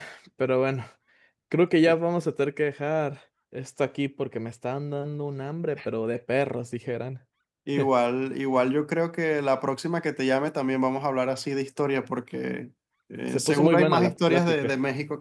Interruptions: present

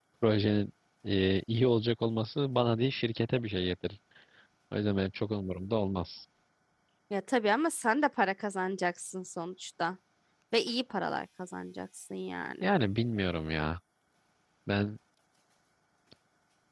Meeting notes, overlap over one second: none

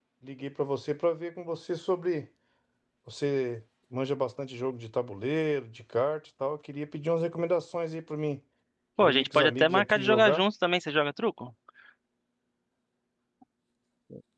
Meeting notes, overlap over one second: present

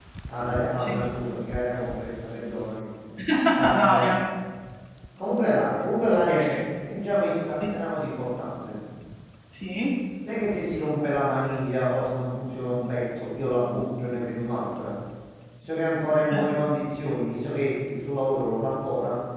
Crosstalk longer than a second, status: none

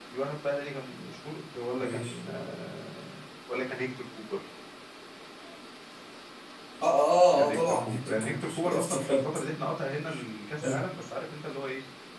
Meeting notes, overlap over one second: present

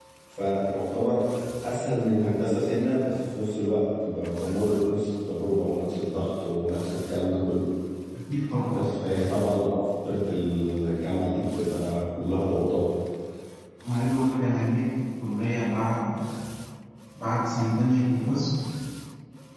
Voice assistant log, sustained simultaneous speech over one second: none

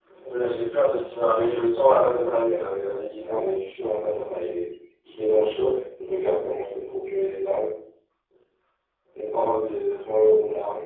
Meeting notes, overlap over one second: none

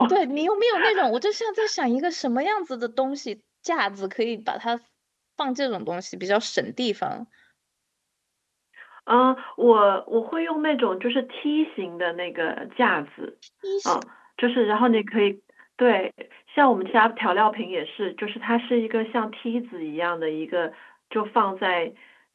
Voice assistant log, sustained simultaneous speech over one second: none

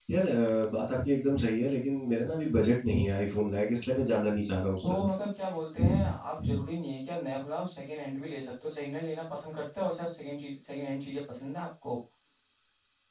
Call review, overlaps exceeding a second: none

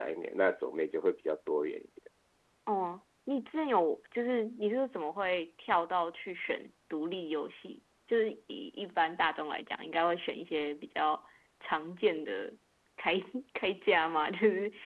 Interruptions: none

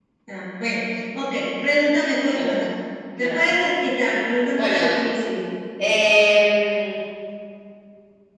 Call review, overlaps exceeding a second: none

